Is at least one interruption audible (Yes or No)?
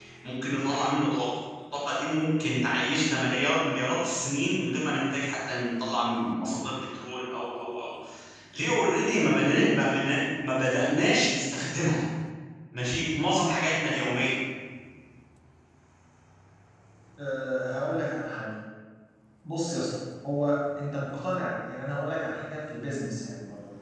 No